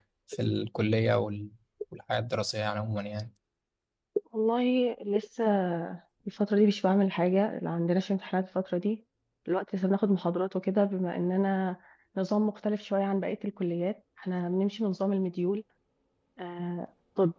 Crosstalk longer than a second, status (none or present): none